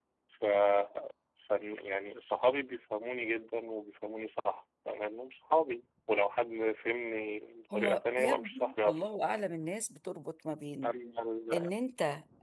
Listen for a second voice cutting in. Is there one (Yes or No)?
Yes